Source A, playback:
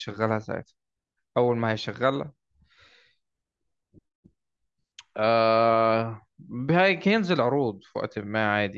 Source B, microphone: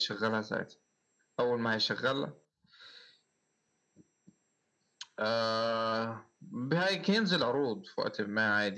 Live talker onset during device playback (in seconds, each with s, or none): none